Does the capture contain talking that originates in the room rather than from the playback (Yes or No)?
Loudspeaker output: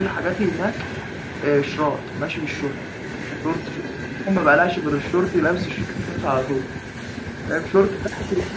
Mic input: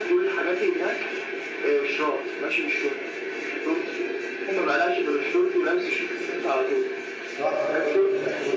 Yes